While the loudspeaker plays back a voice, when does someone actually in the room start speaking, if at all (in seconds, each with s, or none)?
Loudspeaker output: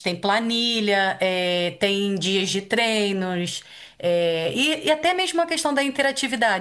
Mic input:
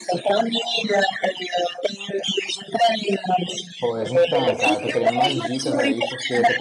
3.8 s